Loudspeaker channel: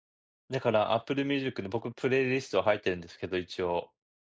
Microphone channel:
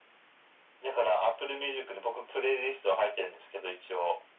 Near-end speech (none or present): none